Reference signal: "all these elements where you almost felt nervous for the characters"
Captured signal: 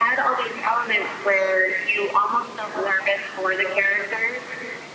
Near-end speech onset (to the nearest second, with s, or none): none